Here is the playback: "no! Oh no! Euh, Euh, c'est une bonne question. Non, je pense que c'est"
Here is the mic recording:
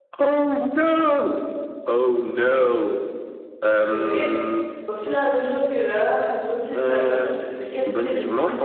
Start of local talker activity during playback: 3.8 s

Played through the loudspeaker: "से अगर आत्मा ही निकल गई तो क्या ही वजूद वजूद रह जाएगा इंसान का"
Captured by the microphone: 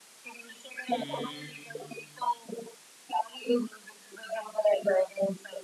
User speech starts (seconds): 0.9 s

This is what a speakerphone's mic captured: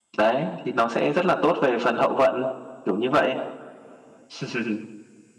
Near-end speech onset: none

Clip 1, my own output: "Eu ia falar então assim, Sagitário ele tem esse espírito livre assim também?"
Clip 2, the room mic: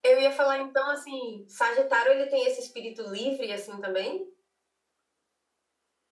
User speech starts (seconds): none

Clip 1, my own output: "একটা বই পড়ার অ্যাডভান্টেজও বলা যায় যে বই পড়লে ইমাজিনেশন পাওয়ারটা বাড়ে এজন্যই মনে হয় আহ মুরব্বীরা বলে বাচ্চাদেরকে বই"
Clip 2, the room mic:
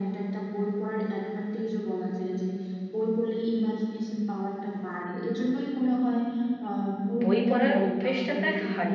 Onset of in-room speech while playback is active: 7.2 s

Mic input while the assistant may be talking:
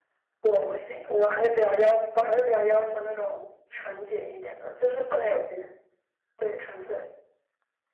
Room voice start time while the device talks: none

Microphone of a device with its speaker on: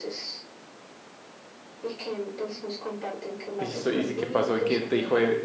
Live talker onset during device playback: 3.6 s

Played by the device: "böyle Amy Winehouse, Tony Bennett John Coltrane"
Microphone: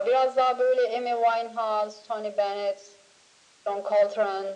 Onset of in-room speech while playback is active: none

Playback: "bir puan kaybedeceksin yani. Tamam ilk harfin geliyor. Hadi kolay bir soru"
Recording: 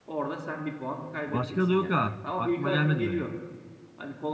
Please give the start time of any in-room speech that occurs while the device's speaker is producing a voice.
1.3 s

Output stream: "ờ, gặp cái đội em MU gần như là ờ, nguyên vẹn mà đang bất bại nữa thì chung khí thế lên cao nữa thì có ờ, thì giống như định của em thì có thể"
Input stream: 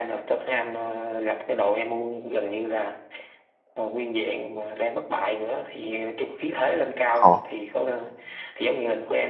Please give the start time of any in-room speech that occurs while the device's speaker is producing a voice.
7.1 s

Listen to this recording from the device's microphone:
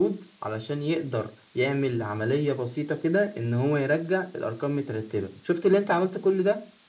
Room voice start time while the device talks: none

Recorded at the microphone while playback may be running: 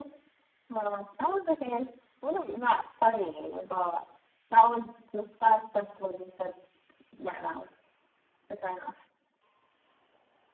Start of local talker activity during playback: none

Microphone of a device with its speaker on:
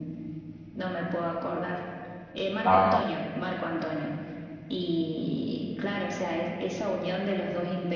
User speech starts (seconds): 2.6 s

